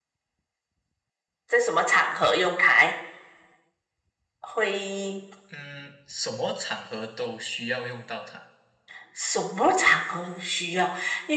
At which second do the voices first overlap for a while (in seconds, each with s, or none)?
none